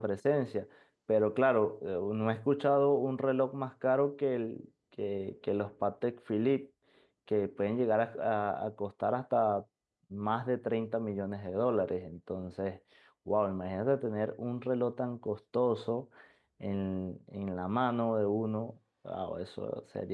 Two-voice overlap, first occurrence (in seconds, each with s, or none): none